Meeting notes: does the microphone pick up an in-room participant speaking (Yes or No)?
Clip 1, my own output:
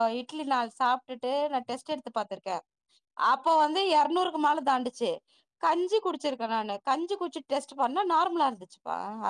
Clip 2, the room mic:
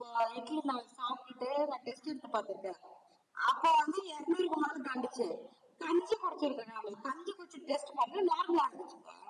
No